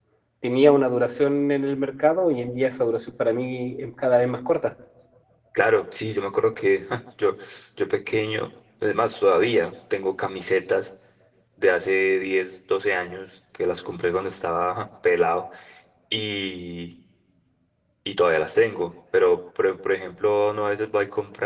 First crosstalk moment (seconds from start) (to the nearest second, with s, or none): none